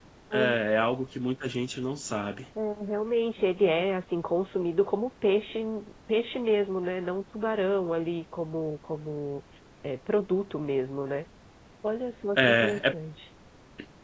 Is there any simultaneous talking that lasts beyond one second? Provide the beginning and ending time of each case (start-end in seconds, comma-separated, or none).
none